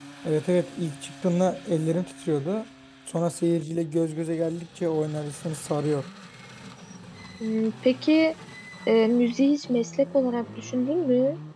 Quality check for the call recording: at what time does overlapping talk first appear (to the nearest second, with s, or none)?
none